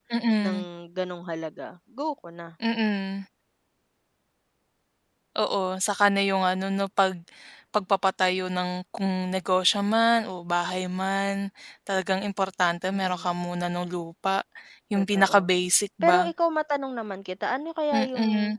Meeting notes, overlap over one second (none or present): none